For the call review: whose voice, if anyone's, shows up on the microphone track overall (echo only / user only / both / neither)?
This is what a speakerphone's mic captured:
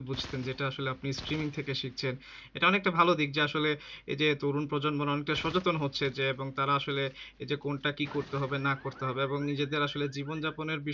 user only